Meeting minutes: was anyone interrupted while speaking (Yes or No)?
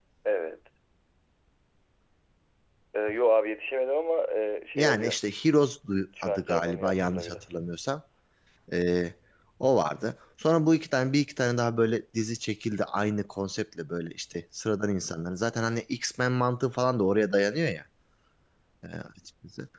Yes